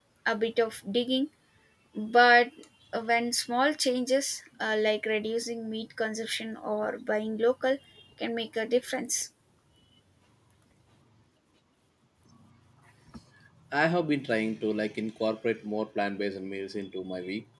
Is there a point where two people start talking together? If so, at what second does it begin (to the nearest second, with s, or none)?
none